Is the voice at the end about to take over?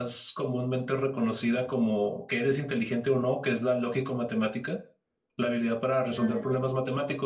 No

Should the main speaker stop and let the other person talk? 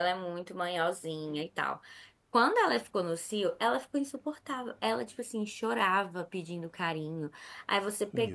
No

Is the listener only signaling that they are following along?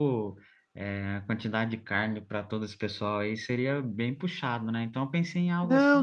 No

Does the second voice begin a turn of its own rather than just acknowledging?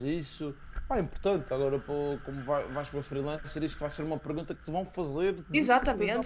Yes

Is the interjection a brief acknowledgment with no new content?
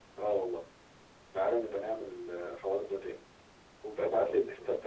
Yes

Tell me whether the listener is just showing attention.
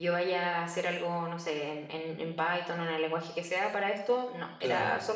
Yes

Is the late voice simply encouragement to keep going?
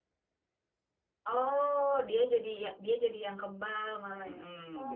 No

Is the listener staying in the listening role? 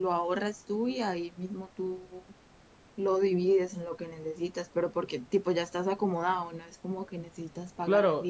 No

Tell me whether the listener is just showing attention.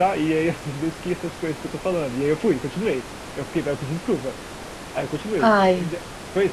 Yes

